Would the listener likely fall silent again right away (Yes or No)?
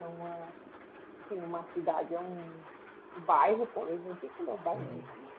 Yes